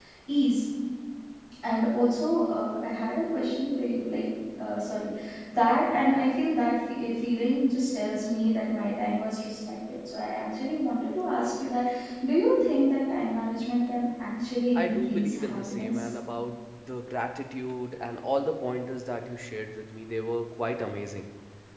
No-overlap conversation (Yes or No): No